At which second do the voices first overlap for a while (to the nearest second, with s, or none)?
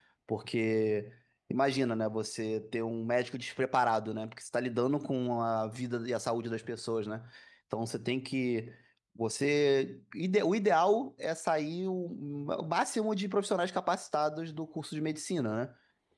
none